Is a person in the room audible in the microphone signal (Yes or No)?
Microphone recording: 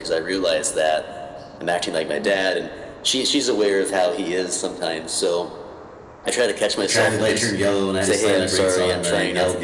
Yes